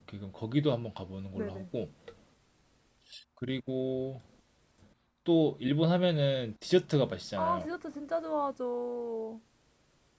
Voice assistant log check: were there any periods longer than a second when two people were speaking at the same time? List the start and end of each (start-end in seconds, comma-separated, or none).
none